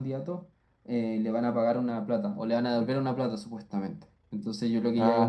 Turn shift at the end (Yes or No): No